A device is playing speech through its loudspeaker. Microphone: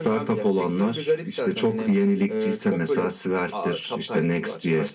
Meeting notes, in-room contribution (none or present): none